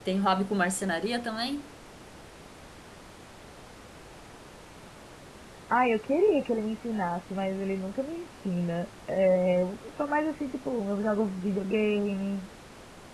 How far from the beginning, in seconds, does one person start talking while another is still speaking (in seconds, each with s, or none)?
none